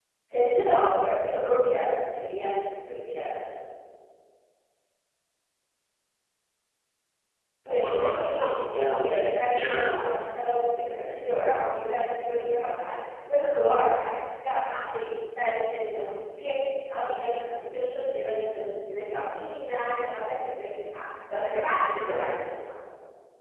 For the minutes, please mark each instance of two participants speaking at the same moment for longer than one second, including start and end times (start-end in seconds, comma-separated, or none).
7.7-10.2